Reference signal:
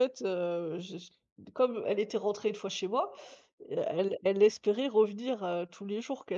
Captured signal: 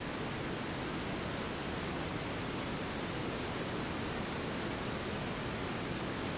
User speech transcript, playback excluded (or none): none